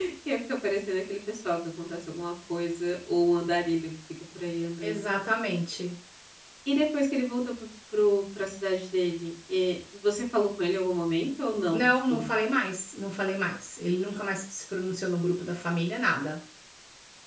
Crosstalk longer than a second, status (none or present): none